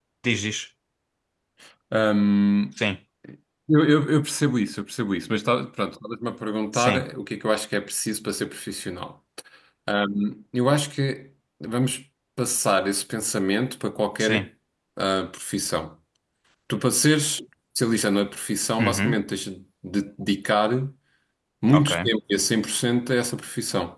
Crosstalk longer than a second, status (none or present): none